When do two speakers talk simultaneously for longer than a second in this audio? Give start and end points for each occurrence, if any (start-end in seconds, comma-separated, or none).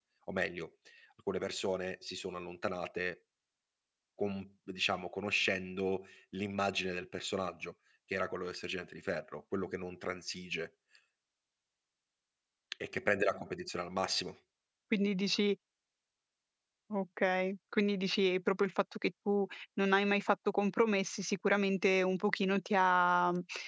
none